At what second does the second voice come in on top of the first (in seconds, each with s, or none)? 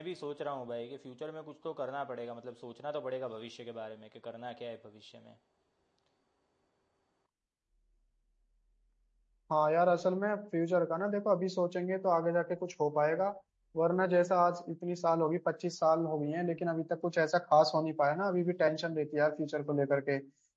none